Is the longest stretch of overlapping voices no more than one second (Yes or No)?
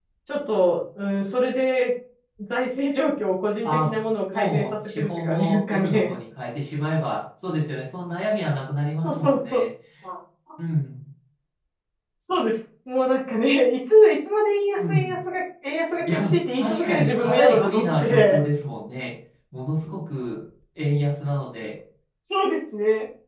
No